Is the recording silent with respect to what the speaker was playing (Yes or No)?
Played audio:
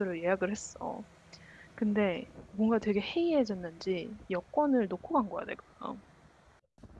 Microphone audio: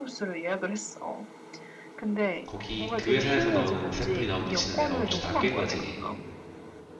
No